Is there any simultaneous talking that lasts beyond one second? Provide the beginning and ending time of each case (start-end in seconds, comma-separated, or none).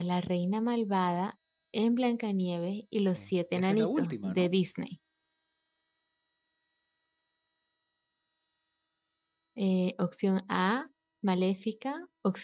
3.0-4.5